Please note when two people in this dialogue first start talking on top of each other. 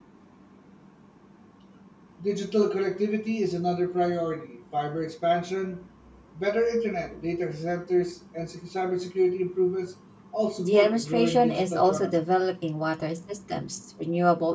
10.6 s

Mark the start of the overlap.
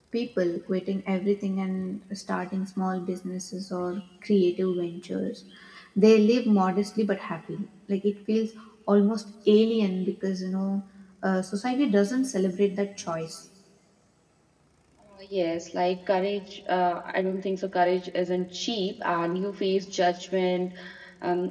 none

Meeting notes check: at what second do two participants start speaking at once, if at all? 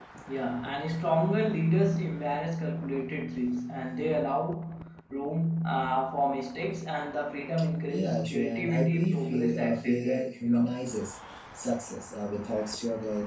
7.9 s

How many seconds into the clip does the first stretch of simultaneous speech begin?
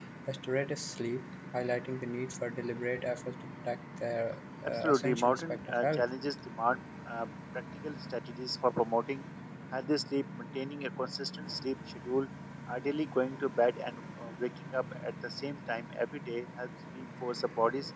4.6 s

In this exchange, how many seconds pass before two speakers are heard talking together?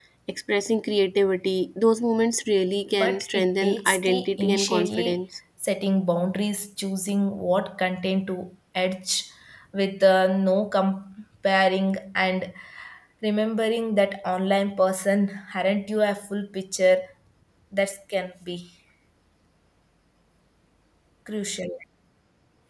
2.9 s

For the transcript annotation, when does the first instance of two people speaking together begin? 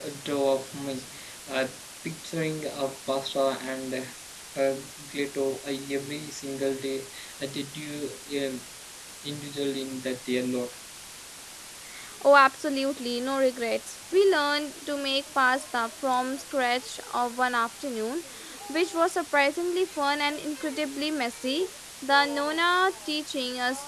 none

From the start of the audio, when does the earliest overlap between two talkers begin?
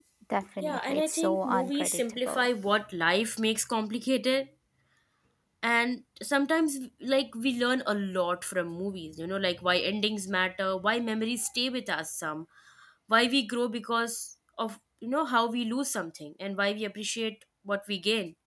0.6 s

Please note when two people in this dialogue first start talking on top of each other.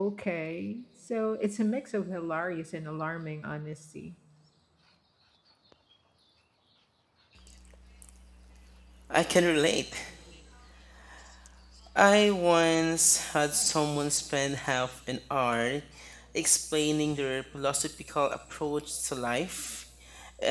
none

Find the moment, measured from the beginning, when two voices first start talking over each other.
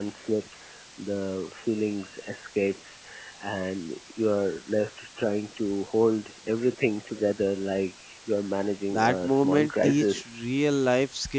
8.9 s

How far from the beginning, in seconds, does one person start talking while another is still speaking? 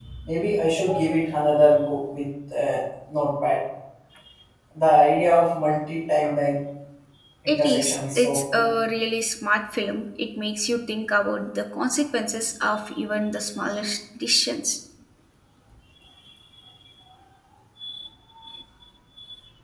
7.5 s

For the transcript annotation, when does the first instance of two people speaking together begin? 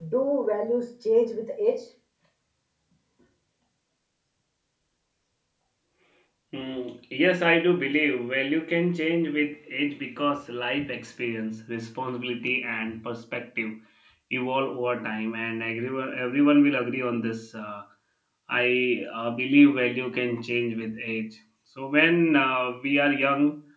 none

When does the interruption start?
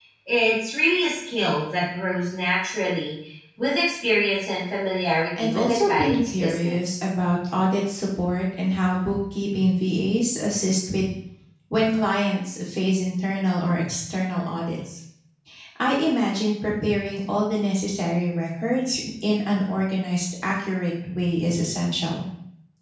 5.4 s

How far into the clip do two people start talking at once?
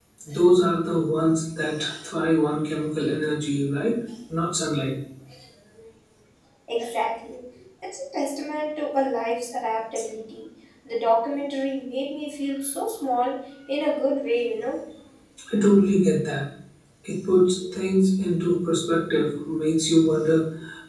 none

